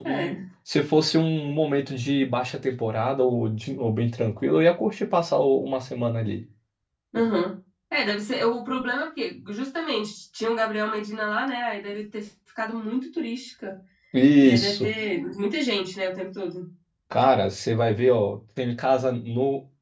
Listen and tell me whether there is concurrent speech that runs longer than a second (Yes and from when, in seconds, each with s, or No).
No